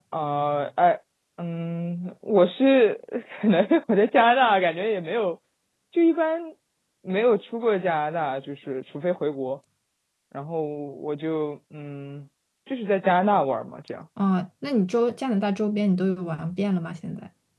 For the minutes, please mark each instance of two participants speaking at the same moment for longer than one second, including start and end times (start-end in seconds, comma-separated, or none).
none